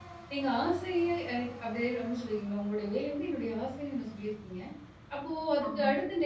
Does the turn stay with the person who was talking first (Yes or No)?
Yes